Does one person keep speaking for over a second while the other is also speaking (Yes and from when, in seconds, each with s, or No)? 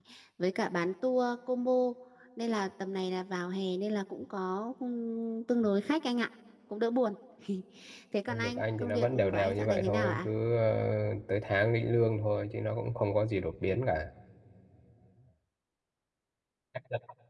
Yes, from 8.3 s